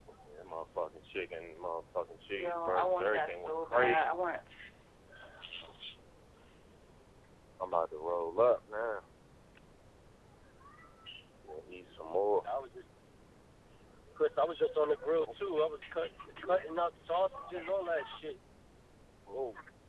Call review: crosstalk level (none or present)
present